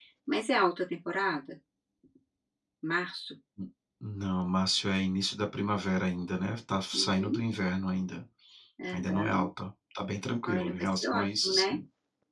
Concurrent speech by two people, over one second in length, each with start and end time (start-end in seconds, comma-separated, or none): 10.4-11.8